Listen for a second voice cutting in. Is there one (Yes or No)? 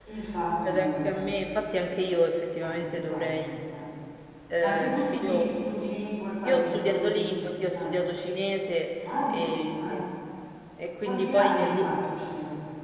Yes